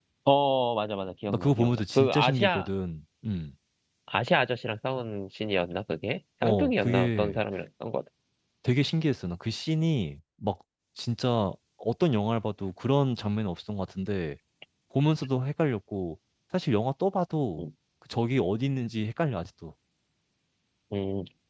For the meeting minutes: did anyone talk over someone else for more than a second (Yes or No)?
Yes